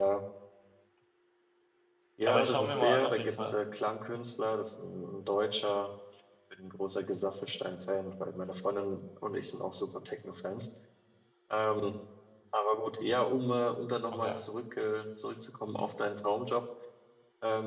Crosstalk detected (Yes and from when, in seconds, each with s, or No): Yes, from 2.3 s